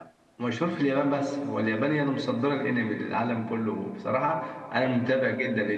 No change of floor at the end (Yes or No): Yes